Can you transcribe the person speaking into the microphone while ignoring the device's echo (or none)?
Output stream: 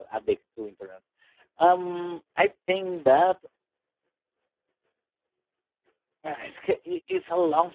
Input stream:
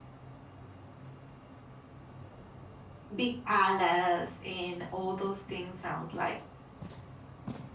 big palace and all those things sounds like